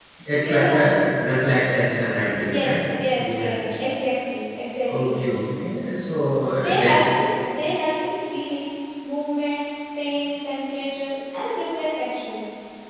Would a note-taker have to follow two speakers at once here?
Yes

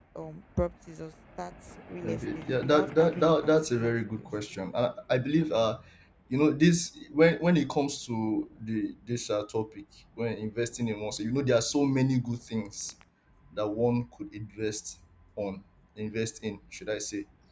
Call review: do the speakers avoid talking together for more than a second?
No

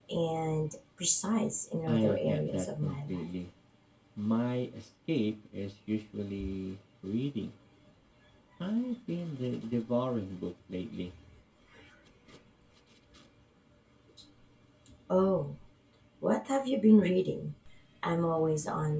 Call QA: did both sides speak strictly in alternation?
No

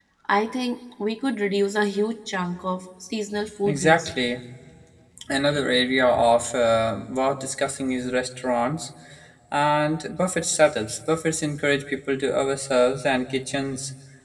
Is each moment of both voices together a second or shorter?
Yes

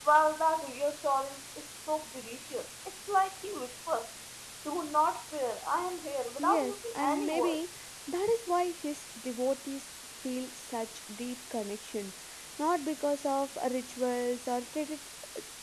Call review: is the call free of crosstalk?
No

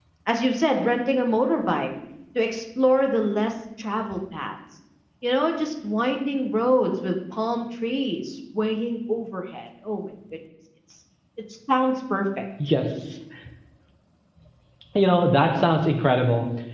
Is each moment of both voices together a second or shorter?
Yes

